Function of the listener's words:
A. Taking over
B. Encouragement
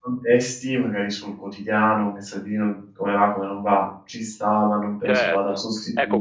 A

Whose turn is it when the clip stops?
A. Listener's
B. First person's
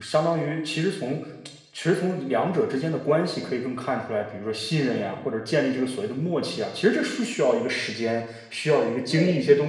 B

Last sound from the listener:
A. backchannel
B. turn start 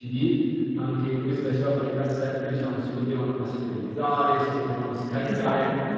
A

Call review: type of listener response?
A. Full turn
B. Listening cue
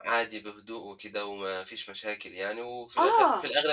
B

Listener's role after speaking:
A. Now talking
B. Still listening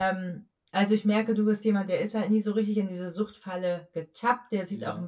B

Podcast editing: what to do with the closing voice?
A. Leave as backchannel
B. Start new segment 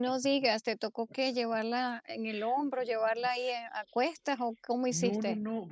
B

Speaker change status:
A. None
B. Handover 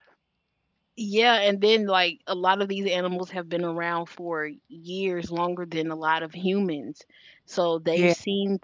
A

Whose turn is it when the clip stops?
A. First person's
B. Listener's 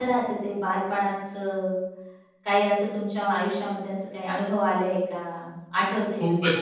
B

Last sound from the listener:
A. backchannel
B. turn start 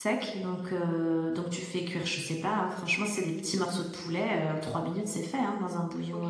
B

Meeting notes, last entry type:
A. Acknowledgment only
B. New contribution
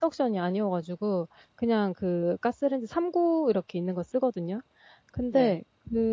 A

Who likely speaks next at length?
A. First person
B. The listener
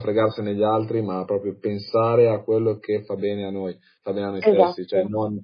A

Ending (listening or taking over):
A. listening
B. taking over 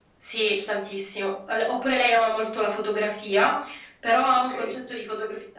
A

